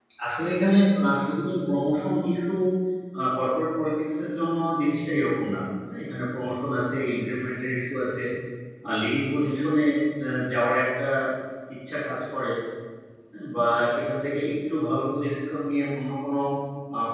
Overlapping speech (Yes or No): No